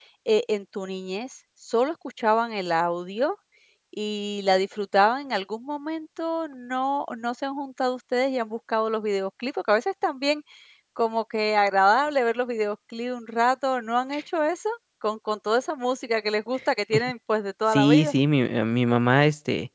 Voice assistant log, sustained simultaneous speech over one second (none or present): none